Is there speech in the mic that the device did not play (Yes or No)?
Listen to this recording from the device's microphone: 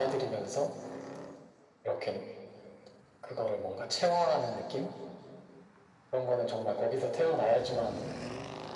No